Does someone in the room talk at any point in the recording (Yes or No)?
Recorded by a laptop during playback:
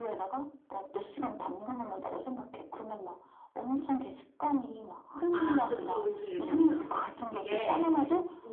Yes